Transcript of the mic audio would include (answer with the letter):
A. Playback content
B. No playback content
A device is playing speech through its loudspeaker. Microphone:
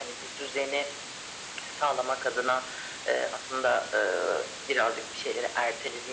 A